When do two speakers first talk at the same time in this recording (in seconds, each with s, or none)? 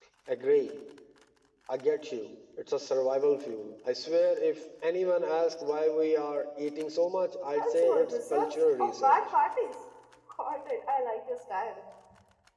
7.6 s